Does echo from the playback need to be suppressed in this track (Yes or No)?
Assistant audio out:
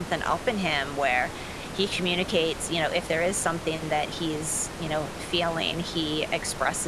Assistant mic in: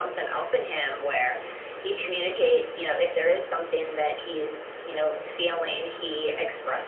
Yes